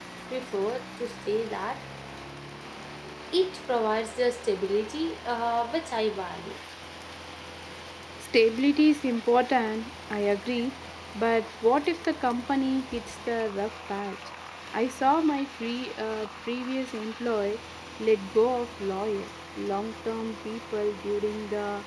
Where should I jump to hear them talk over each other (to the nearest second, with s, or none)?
none